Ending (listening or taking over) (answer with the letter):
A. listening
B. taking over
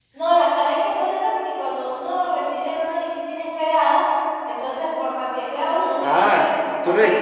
B